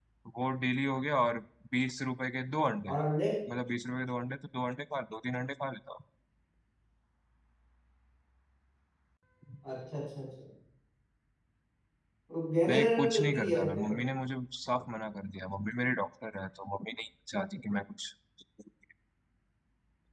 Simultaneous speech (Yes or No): Yes